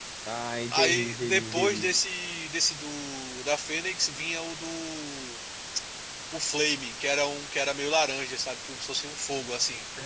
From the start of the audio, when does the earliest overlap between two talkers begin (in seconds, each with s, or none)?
0.7 s